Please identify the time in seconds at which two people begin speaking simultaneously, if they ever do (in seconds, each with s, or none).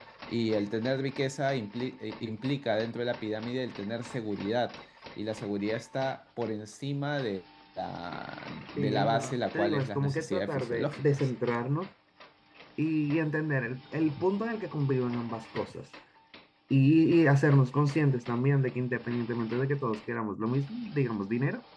8.8 s